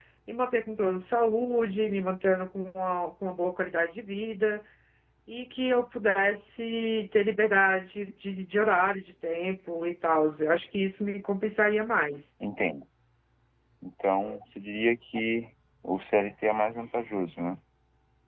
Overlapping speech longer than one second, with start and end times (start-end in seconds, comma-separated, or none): none